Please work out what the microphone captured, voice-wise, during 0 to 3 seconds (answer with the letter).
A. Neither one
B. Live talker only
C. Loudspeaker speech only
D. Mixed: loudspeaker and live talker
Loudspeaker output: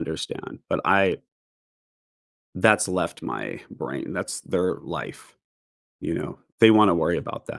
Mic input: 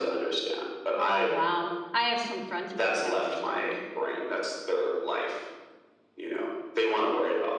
D